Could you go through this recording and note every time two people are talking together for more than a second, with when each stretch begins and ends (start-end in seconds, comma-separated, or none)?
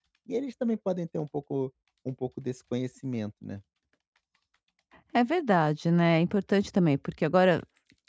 none